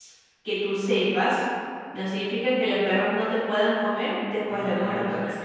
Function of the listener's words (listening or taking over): taking over